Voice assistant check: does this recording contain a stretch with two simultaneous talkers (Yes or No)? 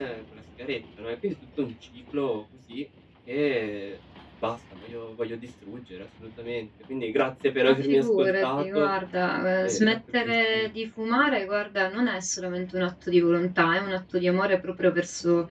Yes